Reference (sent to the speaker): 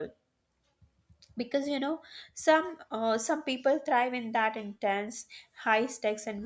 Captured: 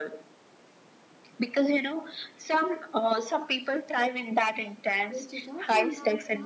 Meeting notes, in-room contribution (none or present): present